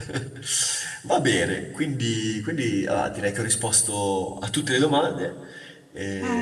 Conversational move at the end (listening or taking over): taking over